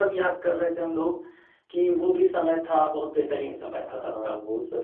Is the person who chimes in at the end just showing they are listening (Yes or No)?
No